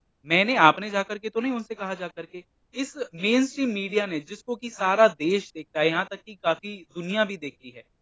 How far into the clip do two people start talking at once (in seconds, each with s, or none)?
none